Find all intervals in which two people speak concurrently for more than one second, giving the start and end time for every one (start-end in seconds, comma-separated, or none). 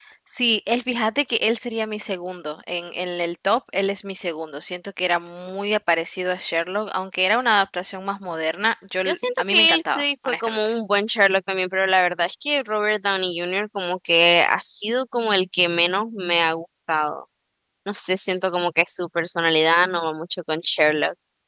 9.1-10.6